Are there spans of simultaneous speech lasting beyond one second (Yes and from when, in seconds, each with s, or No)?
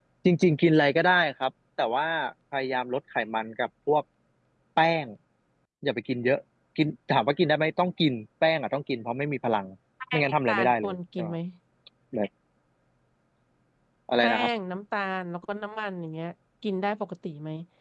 Yes, from 10.1 s